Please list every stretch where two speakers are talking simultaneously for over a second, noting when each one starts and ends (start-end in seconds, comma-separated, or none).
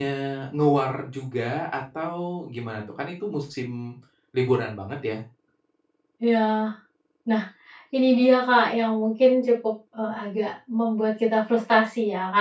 none